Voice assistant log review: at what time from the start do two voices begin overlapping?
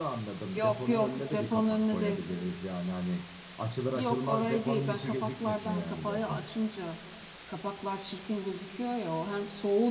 0.5 s

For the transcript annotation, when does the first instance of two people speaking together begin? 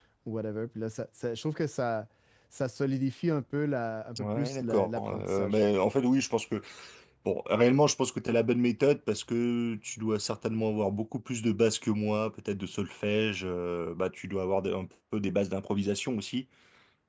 4.2 s

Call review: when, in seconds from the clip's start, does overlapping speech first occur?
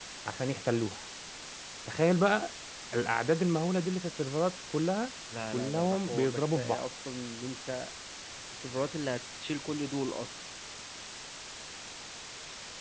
5.5 s

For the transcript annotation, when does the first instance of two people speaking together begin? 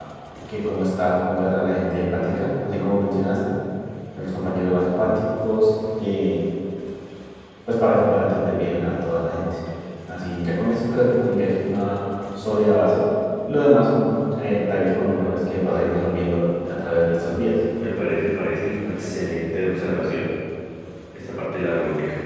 none

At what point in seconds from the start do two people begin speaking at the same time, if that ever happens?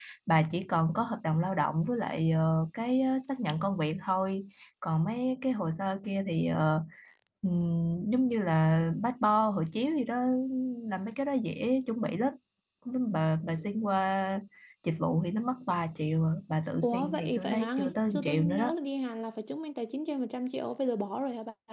16.8 s

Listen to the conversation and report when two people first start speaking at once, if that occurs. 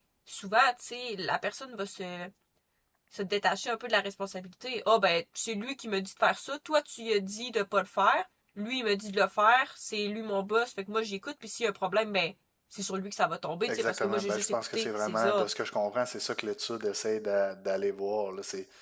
13.7 s

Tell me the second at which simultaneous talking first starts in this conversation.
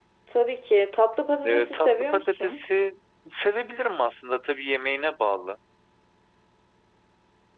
1.4 s

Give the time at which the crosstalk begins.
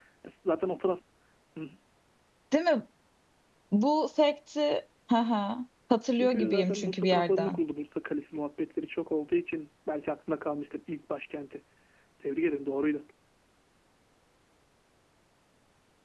6.1 s

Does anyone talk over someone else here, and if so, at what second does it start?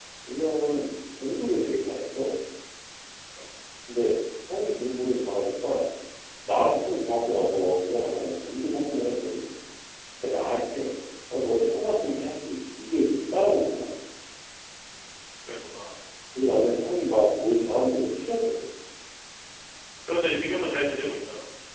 none

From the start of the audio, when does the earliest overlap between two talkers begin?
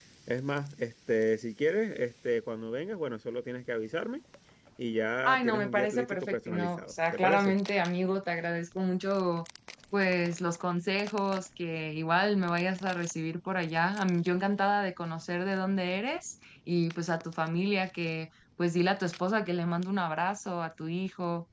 5.2 s

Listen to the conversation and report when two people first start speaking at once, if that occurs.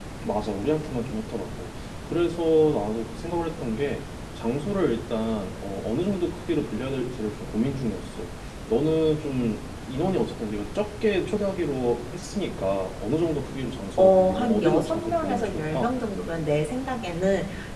14.0 s

